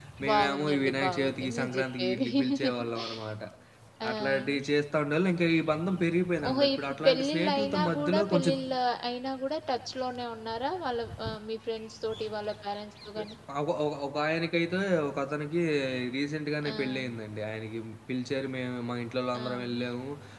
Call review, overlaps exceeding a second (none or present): present